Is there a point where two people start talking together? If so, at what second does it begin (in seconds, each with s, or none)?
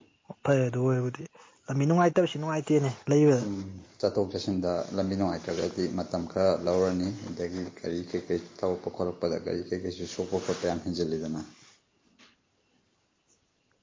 none